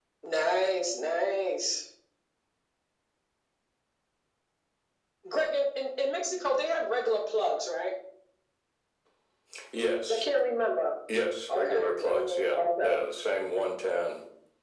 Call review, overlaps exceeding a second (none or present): present